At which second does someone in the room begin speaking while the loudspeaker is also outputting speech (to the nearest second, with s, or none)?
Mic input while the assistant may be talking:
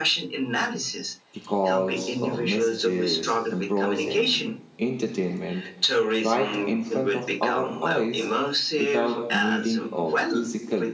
1 s